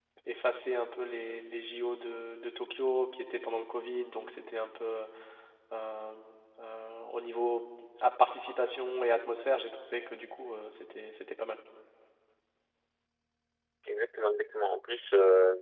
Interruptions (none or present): none